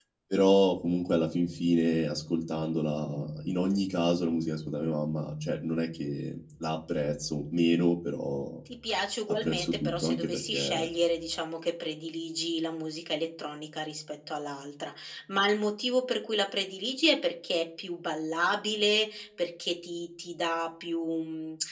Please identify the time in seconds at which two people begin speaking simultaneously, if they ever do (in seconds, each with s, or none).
9.3 s